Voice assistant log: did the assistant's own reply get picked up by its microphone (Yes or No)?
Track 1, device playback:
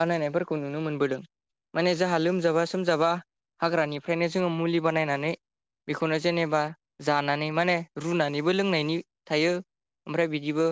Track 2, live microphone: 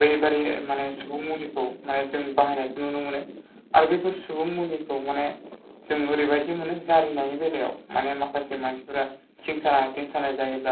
No